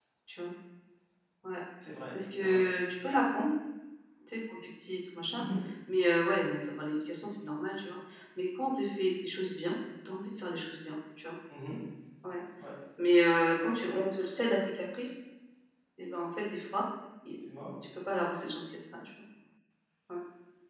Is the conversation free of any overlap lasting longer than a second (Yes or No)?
Yes